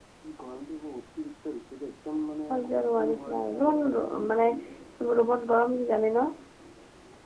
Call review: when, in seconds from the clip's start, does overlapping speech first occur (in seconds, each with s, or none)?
2.5 s